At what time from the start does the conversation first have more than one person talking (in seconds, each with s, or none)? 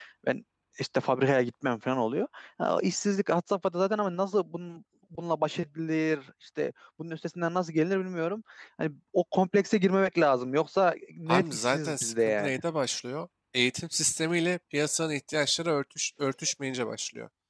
11.3 s